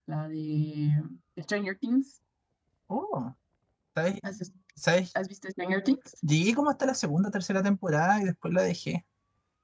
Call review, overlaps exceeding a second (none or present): none